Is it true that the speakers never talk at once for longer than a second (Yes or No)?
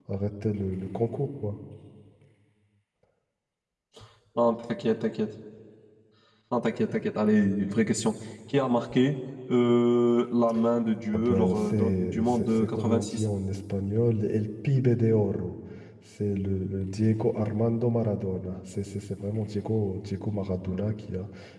No